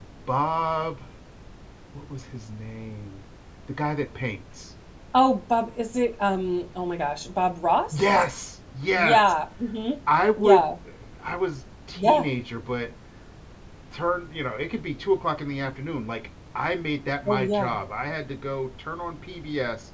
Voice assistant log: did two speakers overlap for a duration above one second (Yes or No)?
No